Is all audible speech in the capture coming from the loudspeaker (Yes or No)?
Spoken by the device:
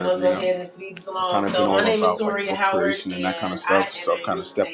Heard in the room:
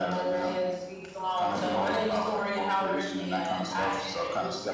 Yes